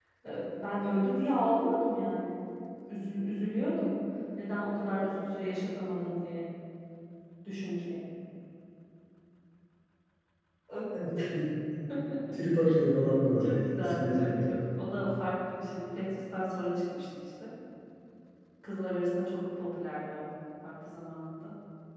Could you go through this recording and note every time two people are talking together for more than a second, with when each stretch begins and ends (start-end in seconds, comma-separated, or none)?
13.4-14.6